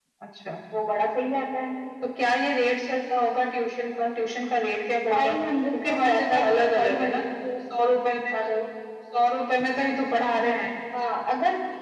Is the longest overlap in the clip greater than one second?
Yes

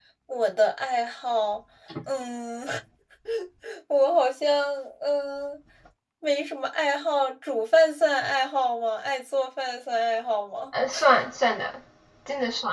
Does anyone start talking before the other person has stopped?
No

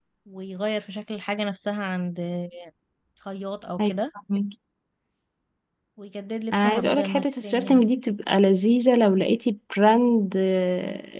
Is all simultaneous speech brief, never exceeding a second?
No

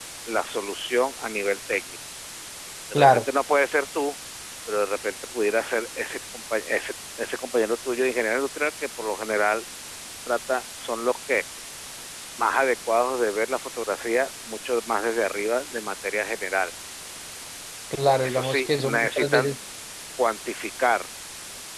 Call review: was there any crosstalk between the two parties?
Yes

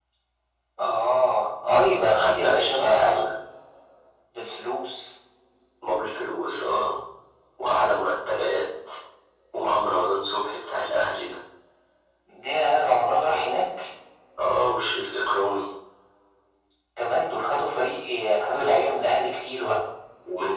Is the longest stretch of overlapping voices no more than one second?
No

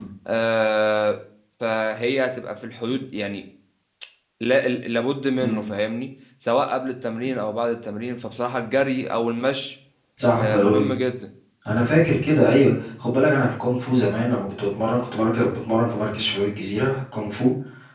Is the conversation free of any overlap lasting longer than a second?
Yes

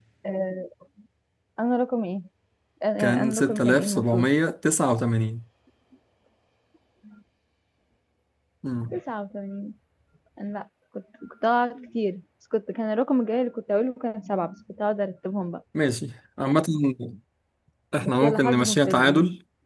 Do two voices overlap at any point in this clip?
Yes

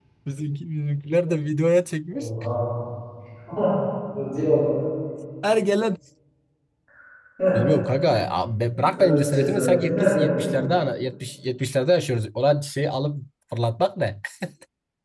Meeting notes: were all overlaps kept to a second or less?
No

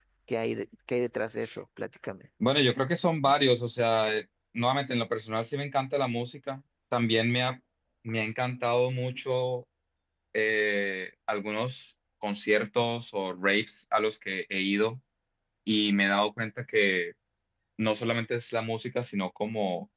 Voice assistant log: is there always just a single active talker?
Yes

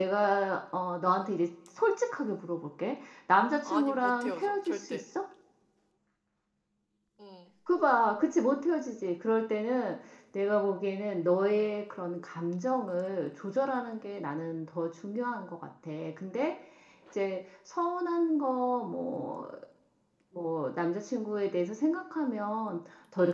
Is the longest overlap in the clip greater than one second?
Yes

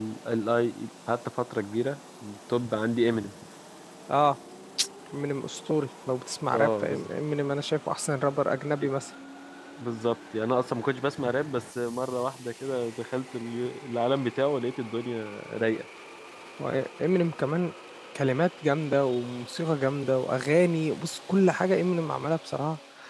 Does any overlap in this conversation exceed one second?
No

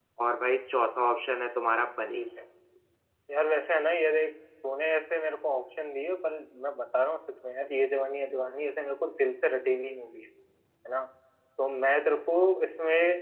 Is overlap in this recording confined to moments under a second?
Yes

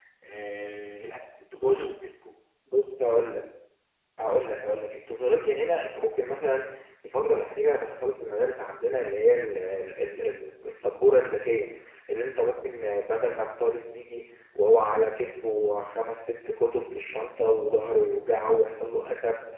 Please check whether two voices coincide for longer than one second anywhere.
No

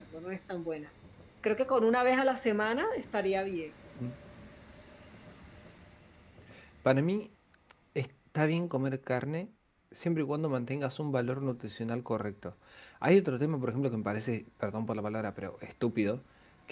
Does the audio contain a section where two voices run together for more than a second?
No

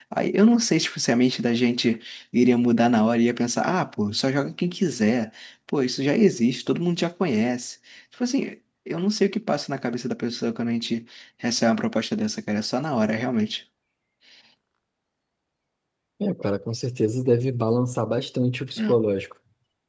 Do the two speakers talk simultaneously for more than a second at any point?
No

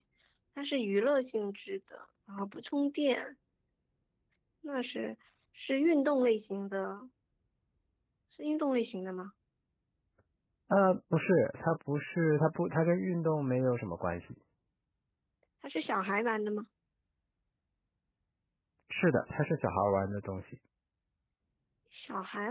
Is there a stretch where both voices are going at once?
No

